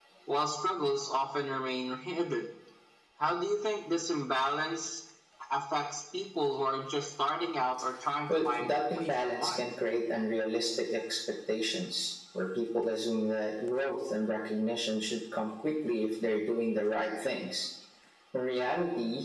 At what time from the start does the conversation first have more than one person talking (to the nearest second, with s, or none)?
8 s